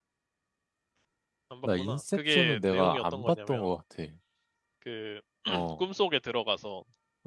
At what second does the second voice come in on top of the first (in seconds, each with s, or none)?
1.6 s